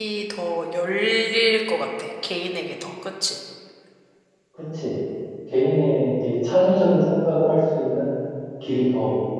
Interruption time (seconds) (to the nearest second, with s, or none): none